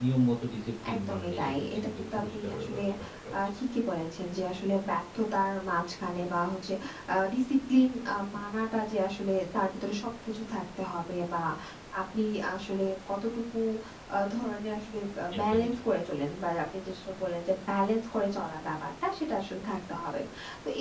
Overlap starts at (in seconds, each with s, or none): 1.0 s